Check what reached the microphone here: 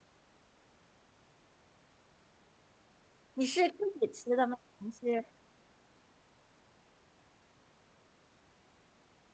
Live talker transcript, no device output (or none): 你是自己吃的吗？还是